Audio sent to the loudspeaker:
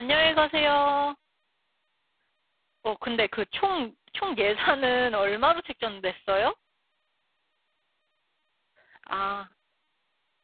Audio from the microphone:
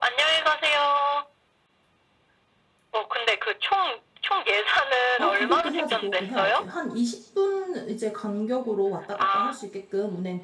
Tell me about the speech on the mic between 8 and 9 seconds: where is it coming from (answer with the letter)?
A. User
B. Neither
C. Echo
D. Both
A